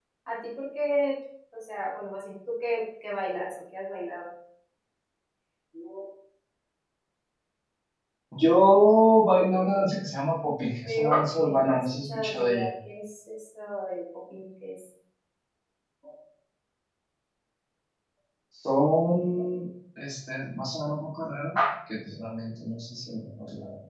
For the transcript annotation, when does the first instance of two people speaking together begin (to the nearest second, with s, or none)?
11 s